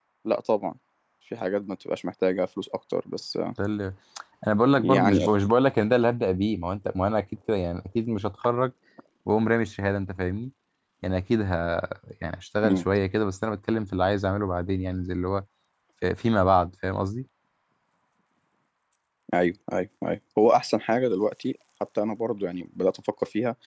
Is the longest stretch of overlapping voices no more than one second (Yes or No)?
Yes